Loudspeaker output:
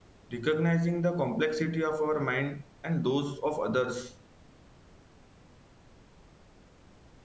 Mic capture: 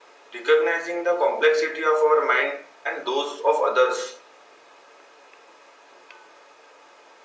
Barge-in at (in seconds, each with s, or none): none